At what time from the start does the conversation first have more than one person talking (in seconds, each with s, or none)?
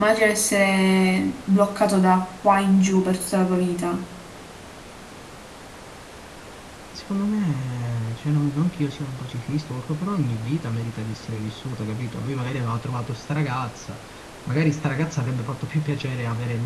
none